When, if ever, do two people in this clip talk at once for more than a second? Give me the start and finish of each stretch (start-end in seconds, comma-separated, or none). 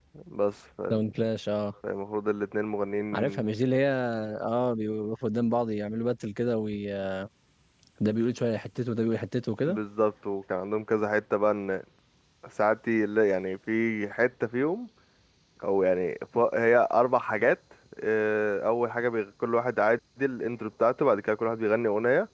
none